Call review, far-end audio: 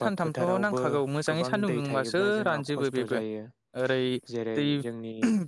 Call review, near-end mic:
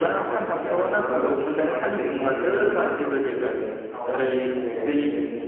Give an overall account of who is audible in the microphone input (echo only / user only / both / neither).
both